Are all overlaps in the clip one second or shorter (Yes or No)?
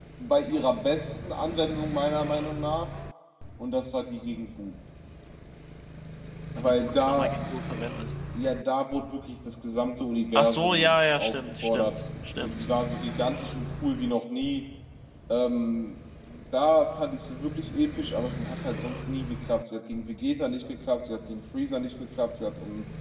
No